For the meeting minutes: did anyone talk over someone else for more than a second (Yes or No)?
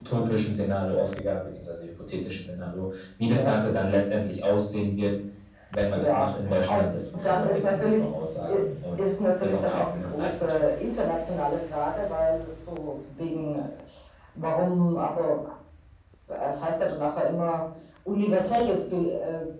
Yes